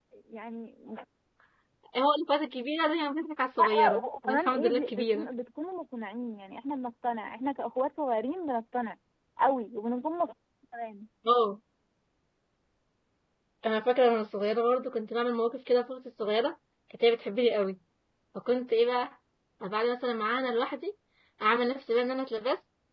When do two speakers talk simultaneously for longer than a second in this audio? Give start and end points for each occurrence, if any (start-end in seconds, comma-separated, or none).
3.6-5.3